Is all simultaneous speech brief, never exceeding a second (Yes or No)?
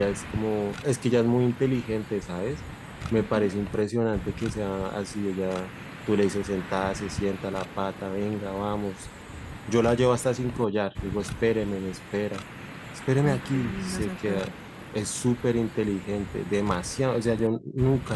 No